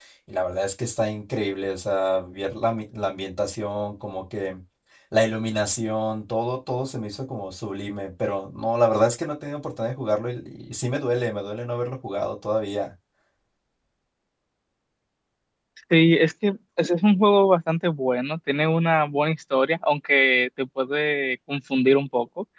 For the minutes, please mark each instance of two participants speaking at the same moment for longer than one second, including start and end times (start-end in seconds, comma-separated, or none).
none